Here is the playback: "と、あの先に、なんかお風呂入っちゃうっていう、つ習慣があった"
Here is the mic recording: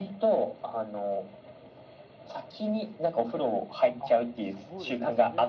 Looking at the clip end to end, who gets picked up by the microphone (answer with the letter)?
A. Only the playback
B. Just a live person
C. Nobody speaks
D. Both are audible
D